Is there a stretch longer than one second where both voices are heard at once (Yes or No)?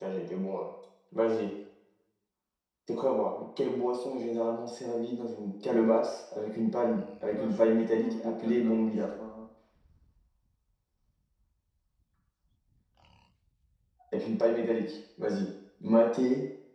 Yes